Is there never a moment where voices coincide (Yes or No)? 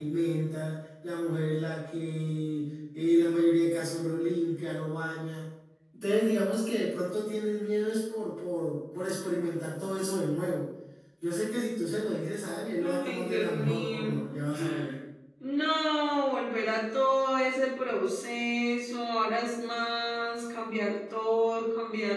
No